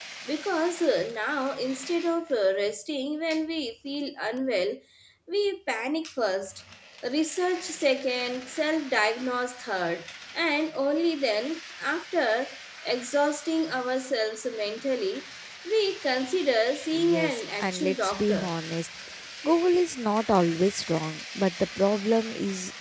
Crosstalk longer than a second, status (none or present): present